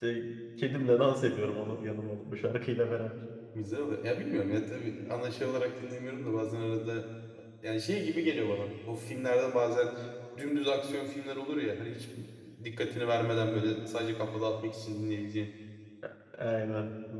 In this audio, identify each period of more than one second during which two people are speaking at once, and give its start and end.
none

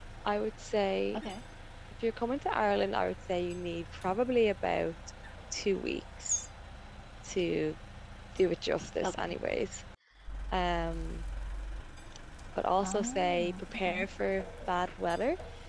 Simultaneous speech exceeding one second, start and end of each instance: 12.8-14.0

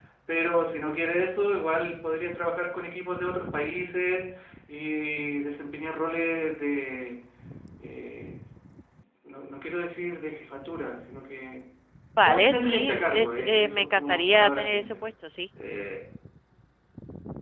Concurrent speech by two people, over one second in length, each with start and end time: 12.2-15.0

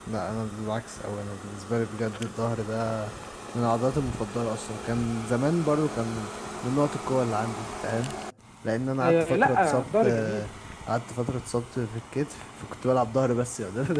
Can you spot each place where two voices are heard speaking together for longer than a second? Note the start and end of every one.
9.0-10.4

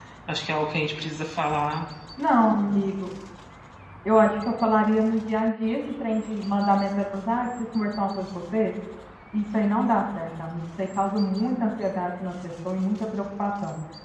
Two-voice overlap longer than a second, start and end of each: none

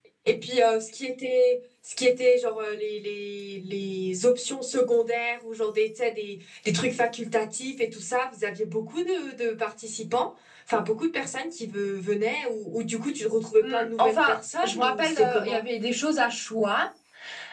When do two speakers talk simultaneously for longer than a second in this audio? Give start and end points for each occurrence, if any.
13.6-15.6

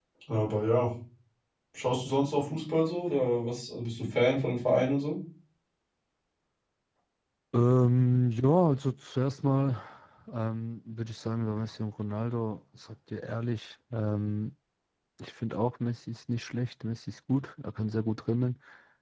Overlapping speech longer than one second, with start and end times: none

